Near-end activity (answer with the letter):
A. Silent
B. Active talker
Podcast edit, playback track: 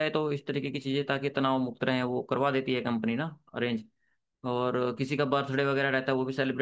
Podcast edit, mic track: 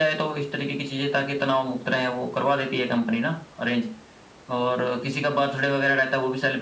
A